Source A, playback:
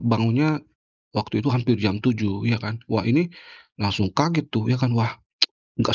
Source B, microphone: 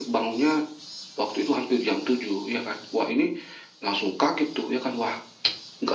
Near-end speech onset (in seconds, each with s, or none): none